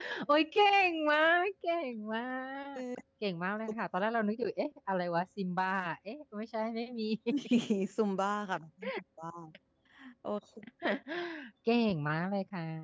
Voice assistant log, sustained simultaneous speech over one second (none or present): none